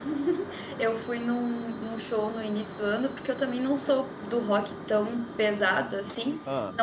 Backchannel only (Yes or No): Yes